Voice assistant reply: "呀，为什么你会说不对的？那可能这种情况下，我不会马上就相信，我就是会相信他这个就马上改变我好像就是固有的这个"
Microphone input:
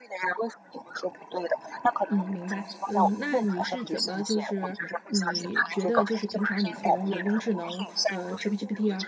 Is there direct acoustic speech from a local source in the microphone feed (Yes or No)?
Yes